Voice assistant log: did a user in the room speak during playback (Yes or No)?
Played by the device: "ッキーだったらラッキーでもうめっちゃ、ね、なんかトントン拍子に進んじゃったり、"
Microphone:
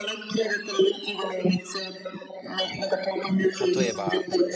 Yes